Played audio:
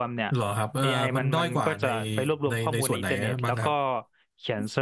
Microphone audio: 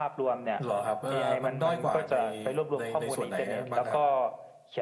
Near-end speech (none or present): none